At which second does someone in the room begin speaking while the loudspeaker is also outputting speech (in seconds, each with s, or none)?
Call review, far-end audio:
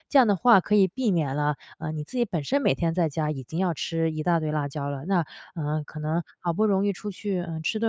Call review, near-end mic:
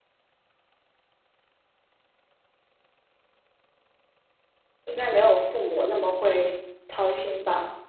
4.8 s